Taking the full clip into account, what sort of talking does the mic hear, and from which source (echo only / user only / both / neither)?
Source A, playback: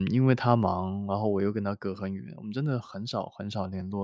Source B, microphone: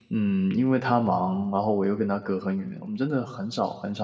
echo only